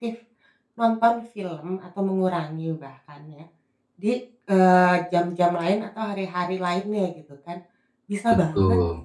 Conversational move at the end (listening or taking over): listening